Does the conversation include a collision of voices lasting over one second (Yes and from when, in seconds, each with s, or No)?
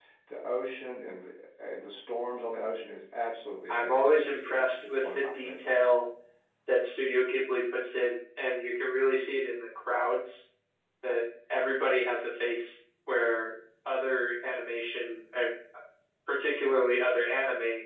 Yes, from 3.7 s